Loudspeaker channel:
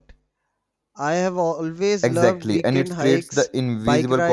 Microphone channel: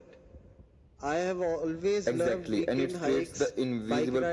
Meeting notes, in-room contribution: none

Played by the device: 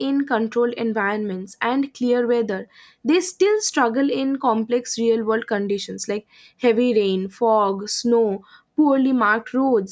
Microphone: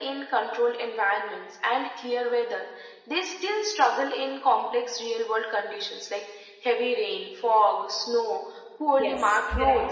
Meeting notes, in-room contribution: present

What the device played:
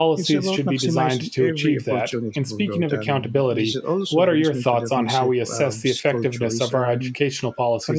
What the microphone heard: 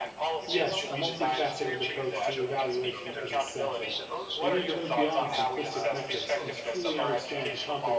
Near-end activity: present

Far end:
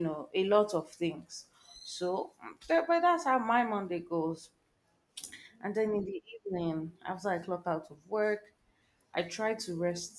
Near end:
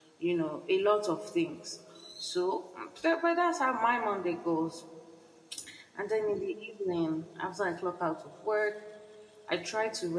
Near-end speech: none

